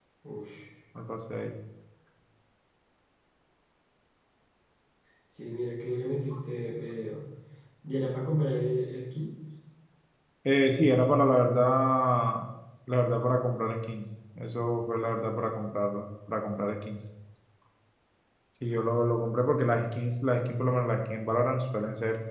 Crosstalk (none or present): none